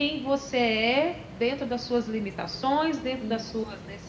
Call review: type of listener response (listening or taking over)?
listening